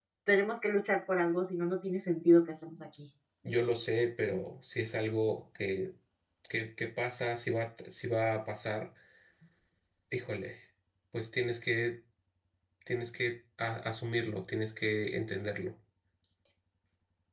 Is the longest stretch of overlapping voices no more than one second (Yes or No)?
Yes